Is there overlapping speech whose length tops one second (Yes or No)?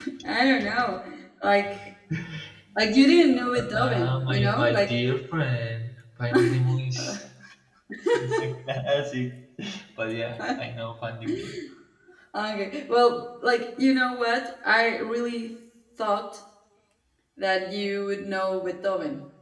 Yes